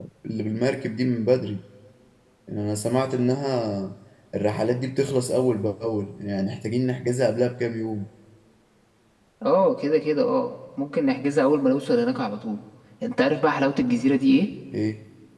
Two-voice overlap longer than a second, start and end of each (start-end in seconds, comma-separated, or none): none